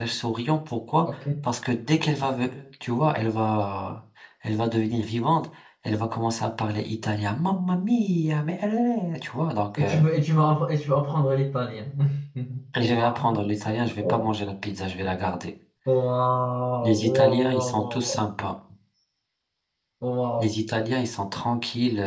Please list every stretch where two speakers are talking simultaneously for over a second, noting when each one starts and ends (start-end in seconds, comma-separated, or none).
16.8-18.2